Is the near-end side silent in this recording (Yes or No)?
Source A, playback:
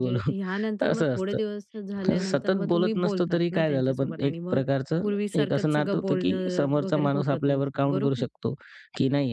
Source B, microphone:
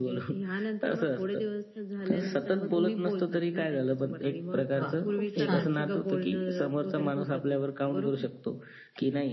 No